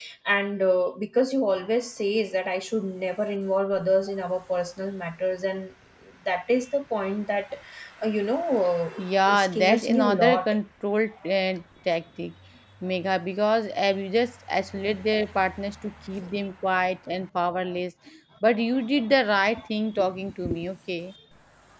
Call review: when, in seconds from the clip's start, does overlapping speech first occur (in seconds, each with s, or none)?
9.0 s